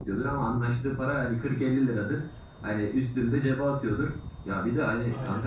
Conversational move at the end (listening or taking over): listening